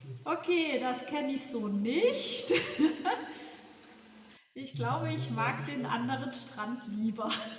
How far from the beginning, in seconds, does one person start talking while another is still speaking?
4.8 s

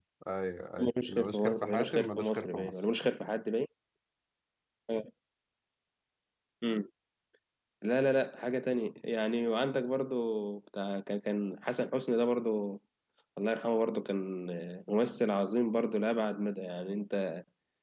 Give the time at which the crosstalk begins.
0.8 s

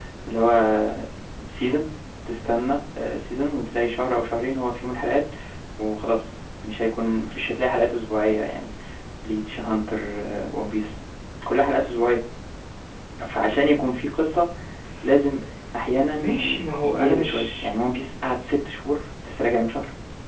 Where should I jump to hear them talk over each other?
16.2 s

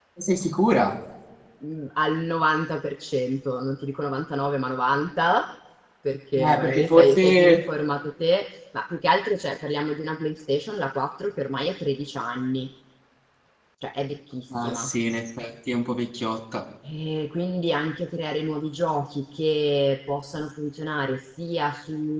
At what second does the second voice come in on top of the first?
6.4 s

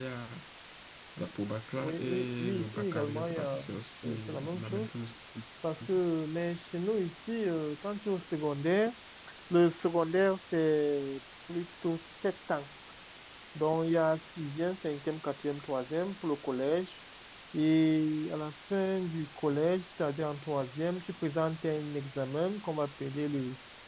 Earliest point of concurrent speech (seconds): 1.8 s

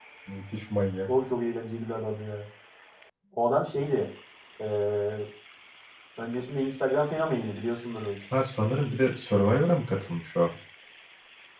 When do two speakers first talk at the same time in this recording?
none

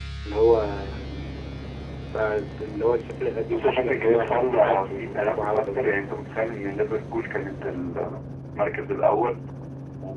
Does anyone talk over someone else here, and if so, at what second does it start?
3.5 s

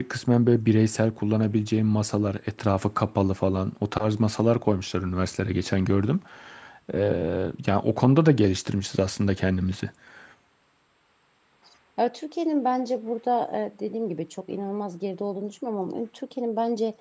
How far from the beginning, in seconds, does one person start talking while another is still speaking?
none

